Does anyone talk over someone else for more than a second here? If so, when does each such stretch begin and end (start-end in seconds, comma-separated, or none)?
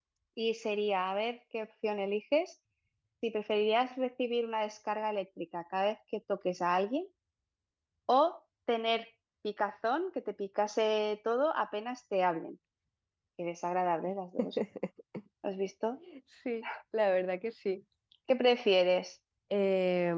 none